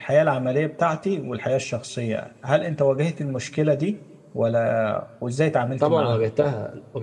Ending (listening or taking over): taking over